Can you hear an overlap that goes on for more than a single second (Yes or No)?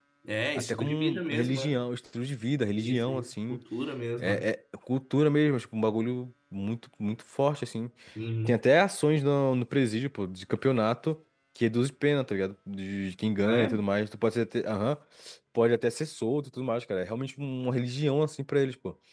Yes